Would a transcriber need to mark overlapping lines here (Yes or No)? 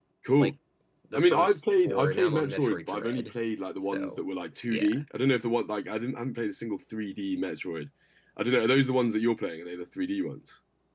Yes